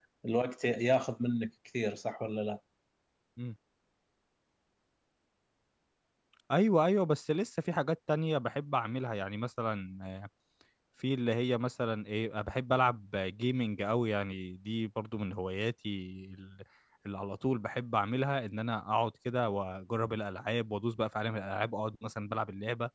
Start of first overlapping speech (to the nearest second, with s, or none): none